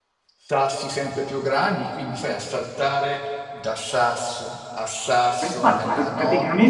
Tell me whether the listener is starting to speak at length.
Yes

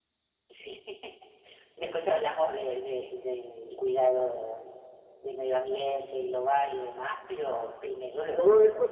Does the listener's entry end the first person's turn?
Yes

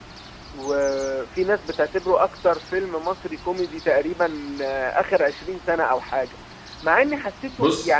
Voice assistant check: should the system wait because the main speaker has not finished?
Yes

